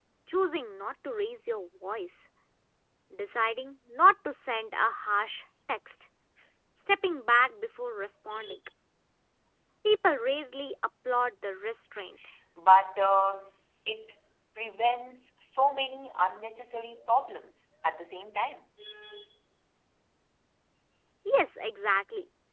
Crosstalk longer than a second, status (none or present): none